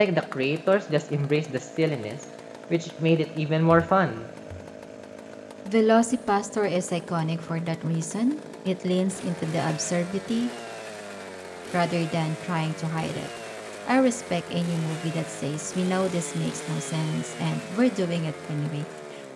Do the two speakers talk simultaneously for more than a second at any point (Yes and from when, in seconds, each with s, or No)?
No